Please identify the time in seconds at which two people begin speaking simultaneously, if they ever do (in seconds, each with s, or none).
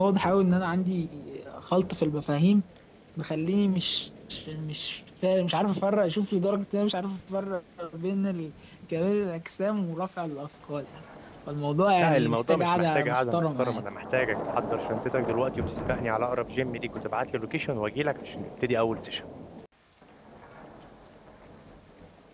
12.0 s